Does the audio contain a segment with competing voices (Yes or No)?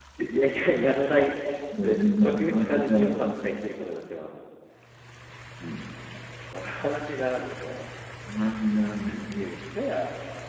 Yes